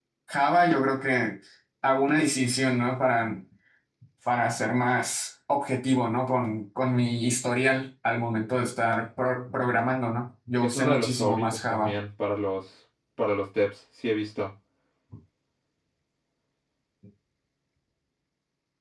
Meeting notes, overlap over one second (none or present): present